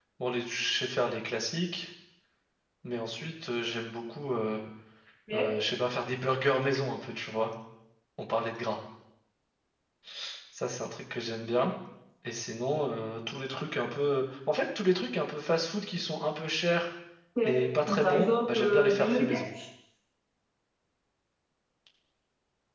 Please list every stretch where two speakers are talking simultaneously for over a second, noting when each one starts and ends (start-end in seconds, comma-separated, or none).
18.0-19.4